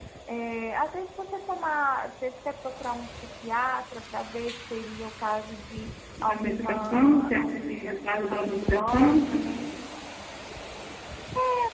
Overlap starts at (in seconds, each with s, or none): 6.2 s